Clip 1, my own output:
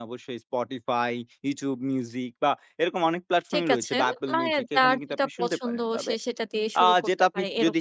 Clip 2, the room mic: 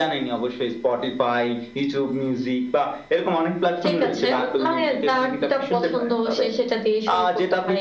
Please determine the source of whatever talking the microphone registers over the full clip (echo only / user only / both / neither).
echo only